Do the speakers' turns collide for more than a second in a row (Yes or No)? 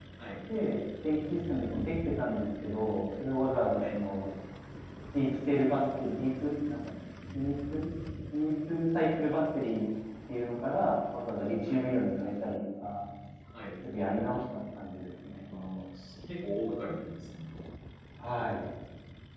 No